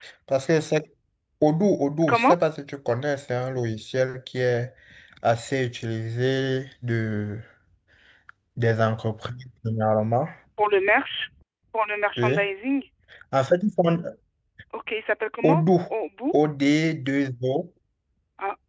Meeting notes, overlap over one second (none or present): none